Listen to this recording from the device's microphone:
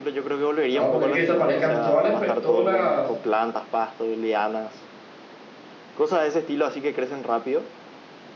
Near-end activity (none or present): present